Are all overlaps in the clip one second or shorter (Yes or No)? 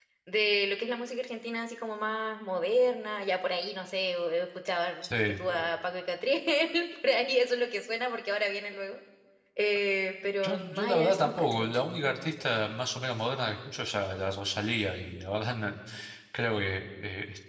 No